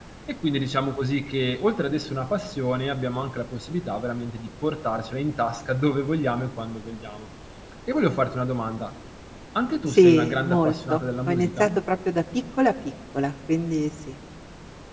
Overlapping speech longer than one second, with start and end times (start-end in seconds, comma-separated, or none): 9.9-11.6